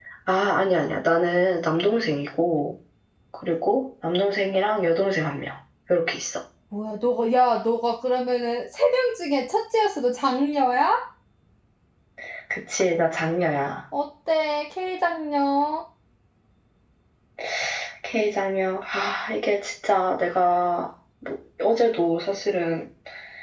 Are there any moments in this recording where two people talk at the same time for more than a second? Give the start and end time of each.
none

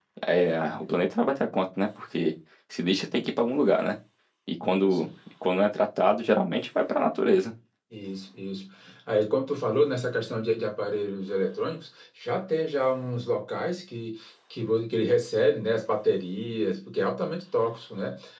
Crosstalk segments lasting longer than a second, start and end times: none

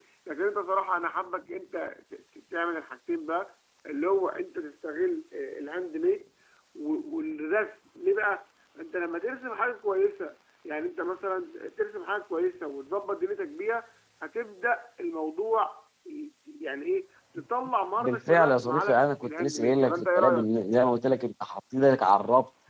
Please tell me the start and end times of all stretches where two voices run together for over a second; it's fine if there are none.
18.0-20.4

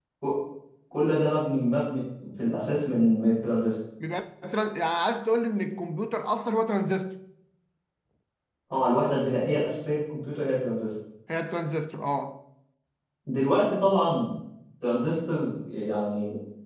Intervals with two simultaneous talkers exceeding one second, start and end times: none

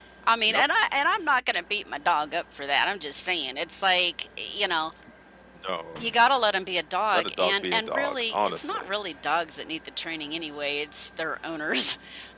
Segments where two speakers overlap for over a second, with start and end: 7.1-8.8

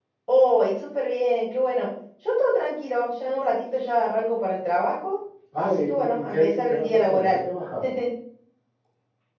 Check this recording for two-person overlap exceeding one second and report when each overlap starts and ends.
5.6-7.4

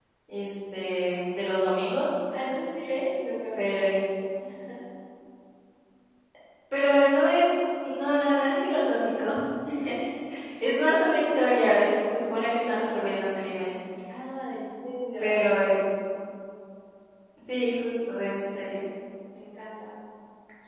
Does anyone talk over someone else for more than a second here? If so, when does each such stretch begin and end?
none

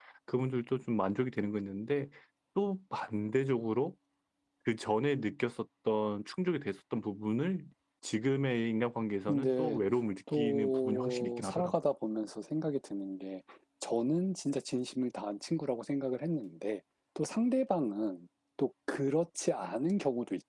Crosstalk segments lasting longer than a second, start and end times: 10.3-11.7

